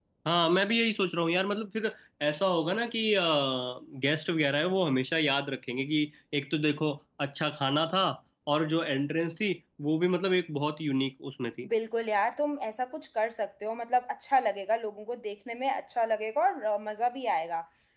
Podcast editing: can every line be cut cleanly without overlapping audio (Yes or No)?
Yes